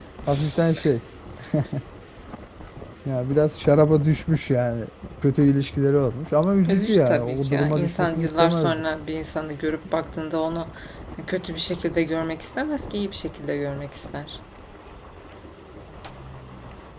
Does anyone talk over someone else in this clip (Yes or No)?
Yes